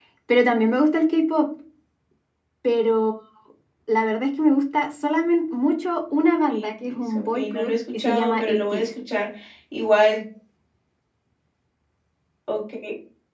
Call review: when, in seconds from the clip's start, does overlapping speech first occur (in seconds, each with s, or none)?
6.5 s